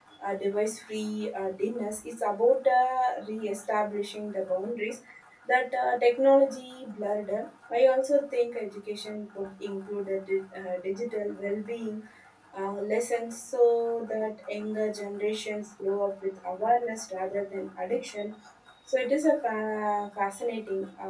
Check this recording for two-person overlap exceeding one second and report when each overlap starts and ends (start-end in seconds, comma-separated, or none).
none